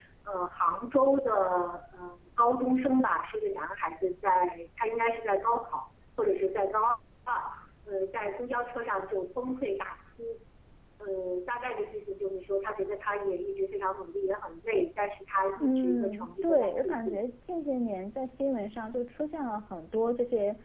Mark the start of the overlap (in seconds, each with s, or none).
15.6 s